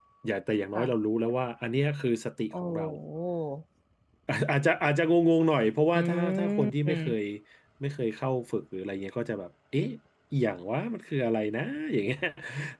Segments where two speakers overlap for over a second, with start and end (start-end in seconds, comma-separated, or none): 6.0-7.2